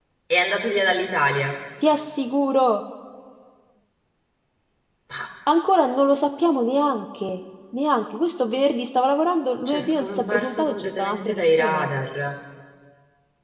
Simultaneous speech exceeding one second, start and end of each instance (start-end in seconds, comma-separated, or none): 9.7-11.9